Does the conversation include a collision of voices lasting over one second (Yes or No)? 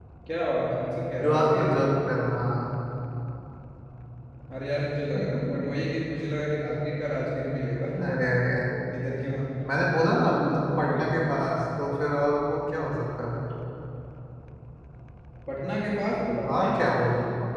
No